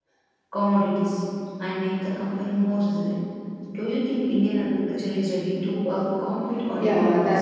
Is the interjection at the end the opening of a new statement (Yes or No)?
Yes